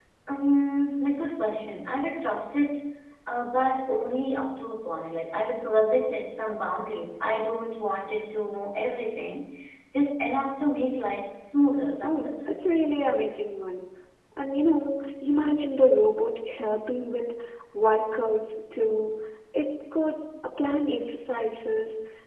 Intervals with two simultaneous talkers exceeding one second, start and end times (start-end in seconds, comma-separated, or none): none